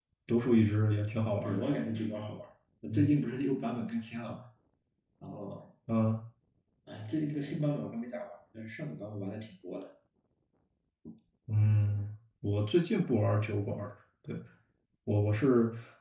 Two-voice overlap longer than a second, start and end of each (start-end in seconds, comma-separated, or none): none